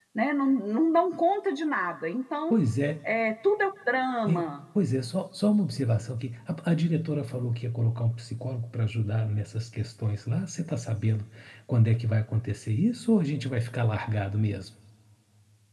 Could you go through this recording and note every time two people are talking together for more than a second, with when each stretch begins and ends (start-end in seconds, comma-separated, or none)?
none